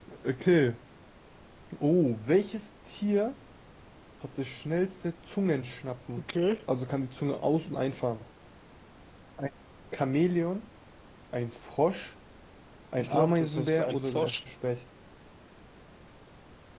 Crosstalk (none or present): present